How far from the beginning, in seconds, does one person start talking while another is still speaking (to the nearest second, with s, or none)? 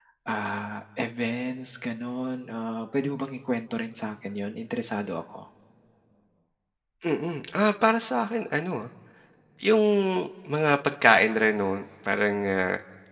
none